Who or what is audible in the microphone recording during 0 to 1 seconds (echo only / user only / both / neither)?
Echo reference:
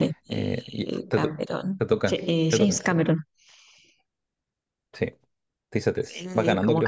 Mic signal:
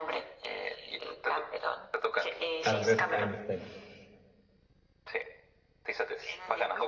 echo only